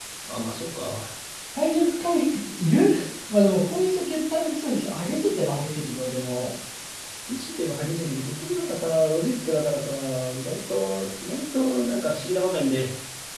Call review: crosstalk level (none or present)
none